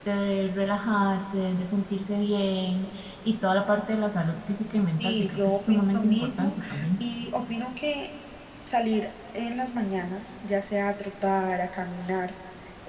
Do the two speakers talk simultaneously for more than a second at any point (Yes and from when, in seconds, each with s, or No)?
Yes, from 5.0 s